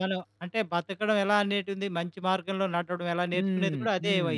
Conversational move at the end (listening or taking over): taking over